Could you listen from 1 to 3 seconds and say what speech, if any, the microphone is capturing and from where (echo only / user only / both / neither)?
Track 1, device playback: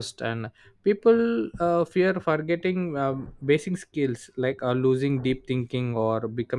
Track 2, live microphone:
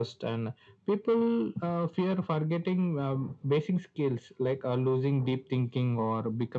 echo only